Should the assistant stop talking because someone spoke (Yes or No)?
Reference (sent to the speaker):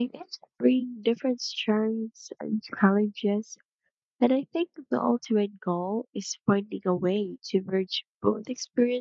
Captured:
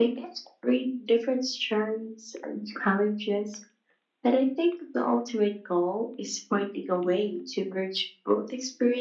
No